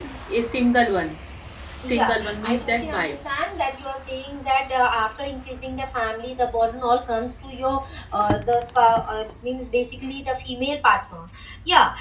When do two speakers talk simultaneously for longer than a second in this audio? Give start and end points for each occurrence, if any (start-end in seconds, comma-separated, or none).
1.9-3.2